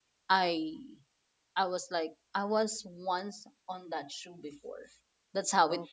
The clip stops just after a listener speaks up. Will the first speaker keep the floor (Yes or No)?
Yes